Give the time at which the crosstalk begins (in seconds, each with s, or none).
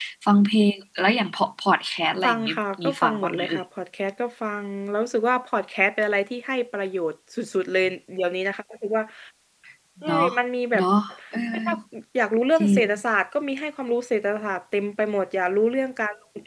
2.2 s